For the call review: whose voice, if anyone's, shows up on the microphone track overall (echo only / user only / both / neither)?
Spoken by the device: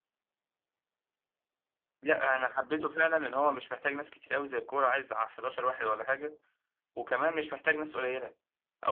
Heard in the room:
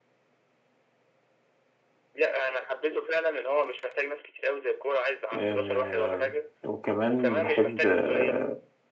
both